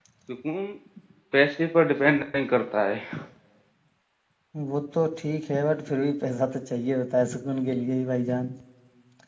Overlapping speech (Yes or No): No